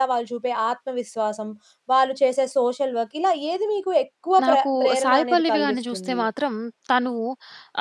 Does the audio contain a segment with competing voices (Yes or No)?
Yes